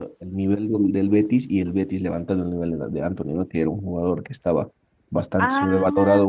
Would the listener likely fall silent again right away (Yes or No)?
Yes